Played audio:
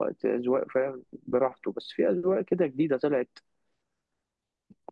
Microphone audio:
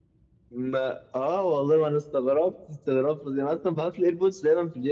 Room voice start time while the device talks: 0.5 s

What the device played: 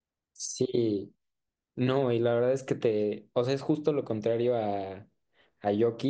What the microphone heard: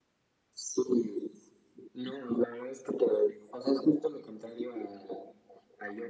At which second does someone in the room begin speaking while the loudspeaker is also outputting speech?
none

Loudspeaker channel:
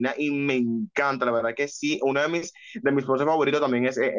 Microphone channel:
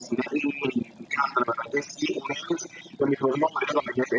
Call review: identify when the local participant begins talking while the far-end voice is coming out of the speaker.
none

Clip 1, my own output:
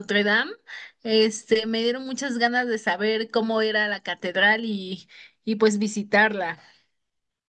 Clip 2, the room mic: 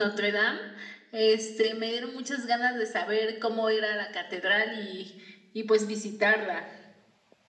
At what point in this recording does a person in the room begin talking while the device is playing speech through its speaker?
none

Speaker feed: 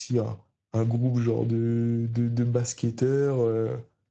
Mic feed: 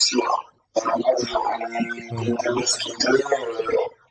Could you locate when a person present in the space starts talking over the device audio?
2.1 s

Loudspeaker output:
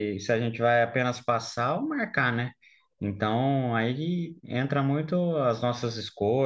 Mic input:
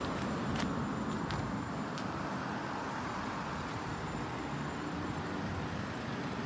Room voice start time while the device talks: none

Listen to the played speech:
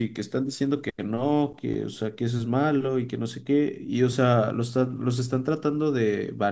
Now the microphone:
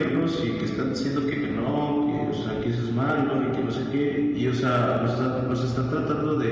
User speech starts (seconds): none

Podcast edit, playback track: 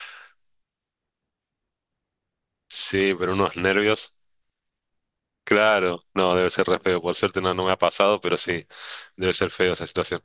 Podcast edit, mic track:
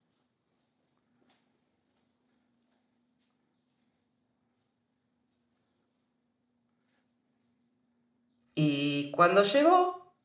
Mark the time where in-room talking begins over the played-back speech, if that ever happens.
8.5 s

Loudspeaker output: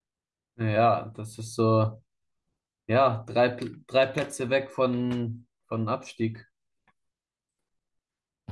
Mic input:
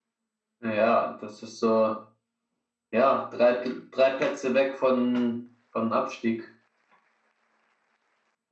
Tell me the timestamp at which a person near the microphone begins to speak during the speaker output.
none

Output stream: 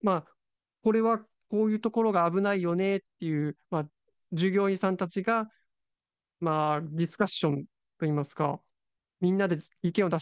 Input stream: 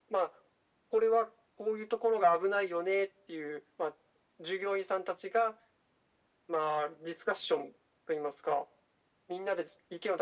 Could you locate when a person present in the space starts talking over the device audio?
none

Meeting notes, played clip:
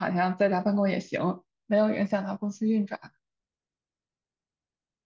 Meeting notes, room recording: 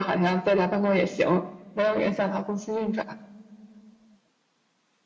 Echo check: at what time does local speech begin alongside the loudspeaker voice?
none

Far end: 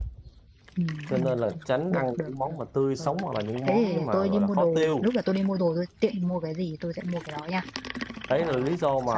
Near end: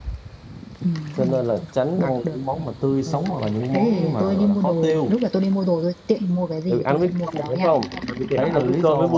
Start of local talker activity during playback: 6.7 s

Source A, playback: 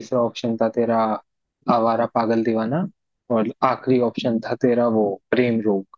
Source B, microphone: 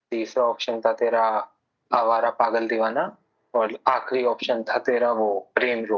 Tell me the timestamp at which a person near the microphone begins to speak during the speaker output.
none

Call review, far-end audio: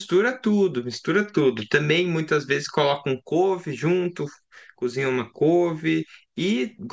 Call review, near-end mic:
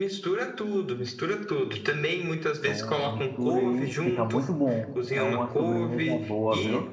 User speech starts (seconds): 2.6 s

